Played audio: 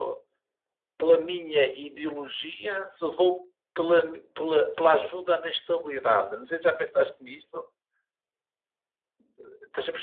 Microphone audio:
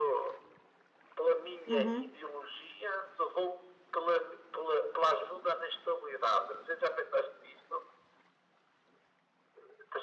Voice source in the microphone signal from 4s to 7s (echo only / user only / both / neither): echo only